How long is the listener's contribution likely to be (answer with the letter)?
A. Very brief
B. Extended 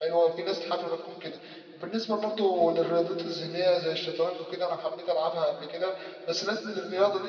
A